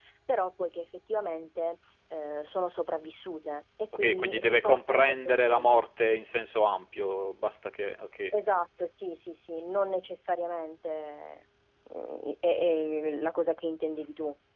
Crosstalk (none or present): present